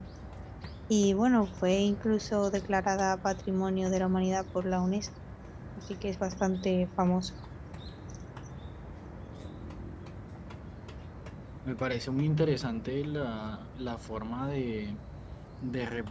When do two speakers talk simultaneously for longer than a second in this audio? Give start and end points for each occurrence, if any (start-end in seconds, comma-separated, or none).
none